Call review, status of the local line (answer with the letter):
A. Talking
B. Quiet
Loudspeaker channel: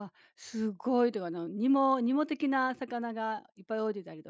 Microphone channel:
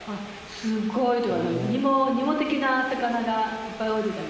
A